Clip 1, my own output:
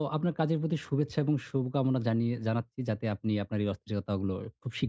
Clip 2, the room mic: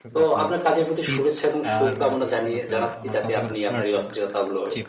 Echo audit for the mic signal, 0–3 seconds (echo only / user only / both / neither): both